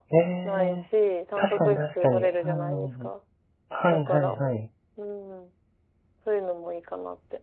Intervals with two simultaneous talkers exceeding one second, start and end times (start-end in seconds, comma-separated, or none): 1.4-3.1